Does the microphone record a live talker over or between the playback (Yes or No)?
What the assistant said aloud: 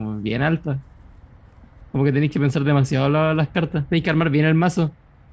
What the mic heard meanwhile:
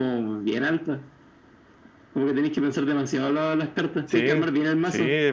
Yes